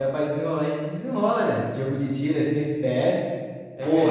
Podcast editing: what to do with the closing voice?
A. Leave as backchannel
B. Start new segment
B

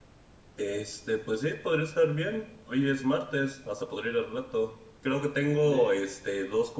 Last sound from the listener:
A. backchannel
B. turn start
A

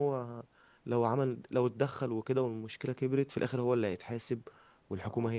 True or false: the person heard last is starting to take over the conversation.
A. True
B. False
B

